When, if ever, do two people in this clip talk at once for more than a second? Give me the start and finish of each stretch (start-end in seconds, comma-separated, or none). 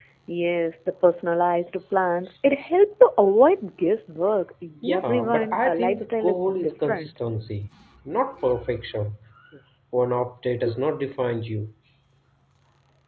4.9-7.1